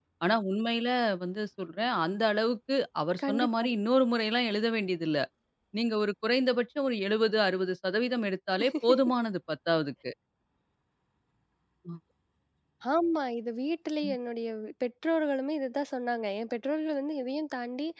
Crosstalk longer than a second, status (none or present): none